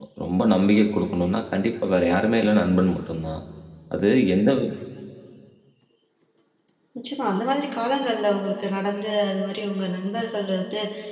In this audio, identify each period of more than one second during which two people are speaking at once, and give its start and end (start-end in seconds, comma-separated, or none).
none